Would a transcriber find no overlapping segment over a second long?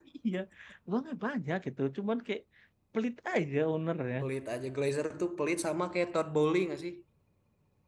Yes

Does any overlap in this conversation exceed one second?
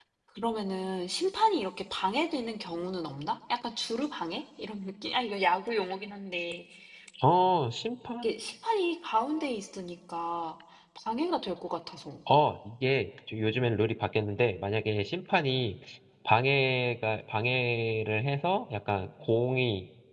No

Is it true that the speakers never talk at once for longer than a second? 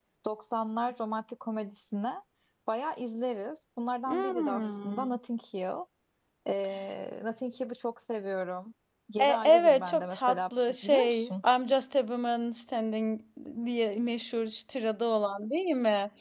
No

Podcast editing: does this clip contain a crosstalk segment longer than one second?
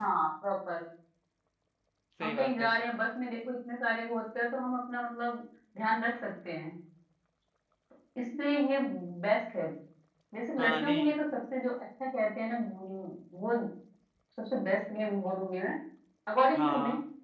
No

